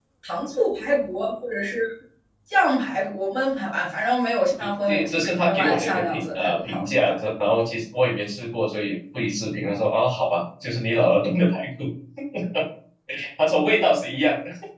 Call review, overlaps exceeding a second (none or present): present